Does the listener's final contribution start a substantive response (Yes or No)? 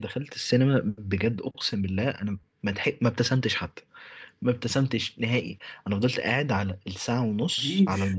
No